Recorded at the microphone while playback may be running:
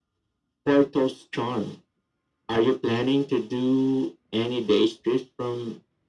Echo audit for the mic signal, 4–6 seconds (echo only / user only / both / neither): echo only